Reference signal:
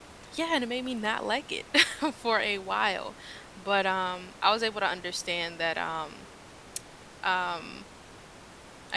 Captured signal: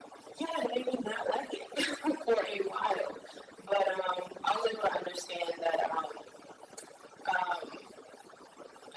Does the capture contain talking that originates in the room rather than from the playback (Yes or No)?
No